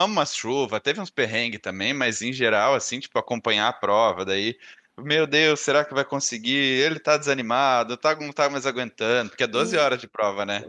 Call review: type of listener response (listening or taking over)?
taking over